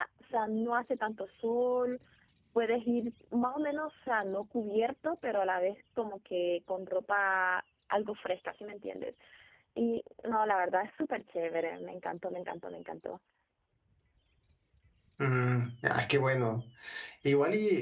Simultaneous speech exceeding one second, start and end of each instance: none

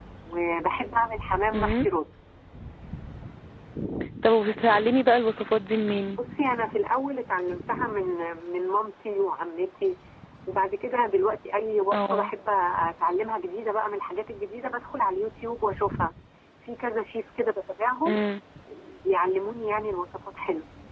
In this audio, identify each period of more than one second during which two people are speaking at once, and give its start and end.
none

